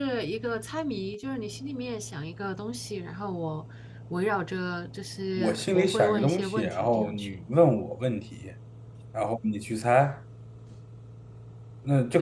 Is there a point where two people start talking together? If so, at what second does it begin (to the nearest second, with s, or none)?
5 s